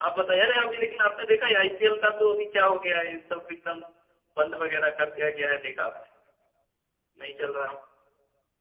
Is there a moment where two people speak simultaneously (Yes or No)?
No